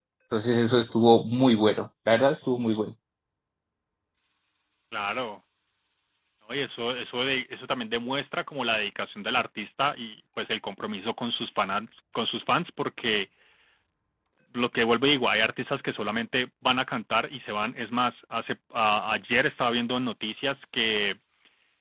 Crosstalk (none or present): none